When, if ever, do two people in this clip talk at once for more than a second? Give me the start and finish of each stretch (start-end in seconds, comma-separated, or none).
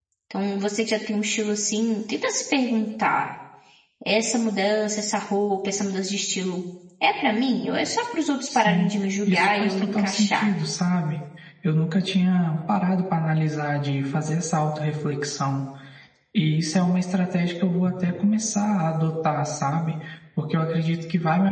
9.3-10.5